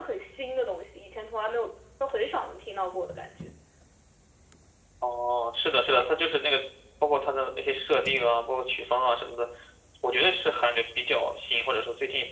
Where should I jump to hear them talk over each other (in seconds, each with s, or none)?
none